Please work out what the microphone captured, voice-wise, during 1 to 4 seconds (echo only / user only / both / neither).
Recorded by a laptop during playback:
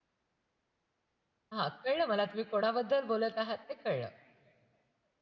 user only